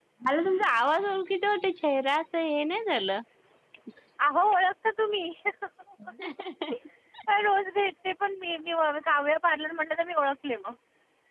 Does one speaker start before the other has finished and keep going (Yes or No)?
No